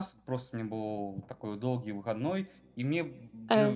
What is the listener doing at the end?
listening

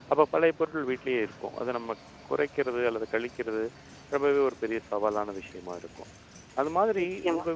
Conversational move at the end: listening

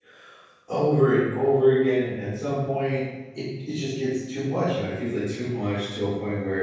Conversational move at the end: listening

